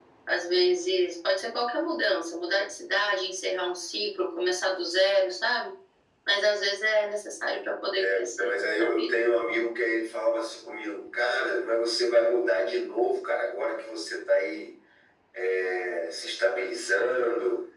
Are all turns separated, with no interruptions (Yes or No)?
No